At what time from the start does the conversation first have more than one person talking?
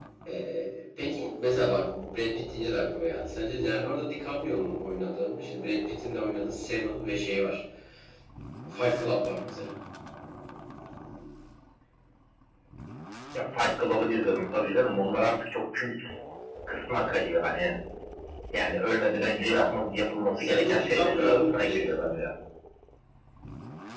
20 s

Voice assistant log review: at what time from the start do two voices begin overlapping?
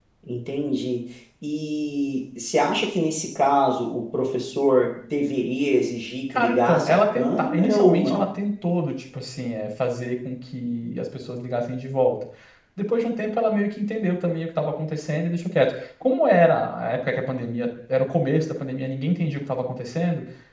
6 s

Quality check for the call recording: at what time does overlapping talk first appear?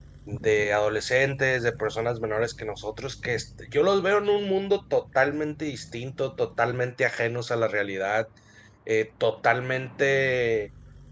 none

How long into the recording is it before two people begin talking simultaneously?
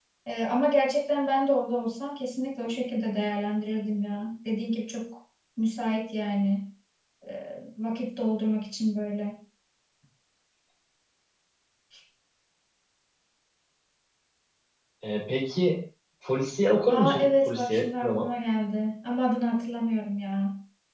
17 s

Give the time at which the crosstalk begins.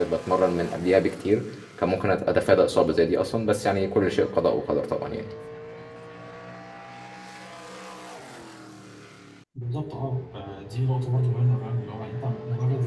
none

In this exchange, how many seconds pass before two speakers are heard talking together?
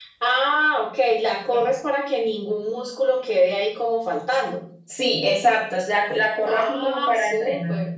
6 s

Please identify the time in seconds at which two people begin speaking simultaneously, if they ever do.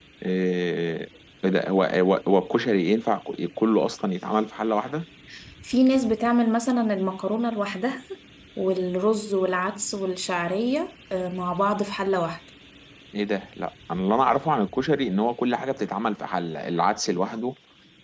none

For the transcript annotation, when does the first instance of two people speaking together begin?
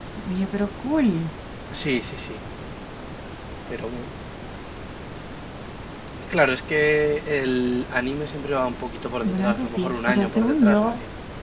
9 s

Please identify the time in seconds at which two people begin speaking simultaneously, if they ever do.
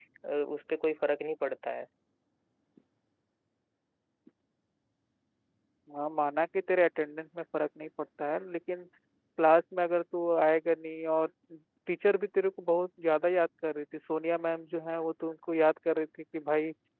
none

